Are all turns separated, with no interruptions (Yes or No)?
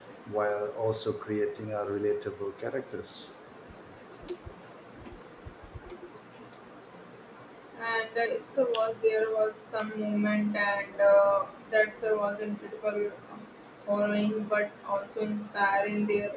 Yes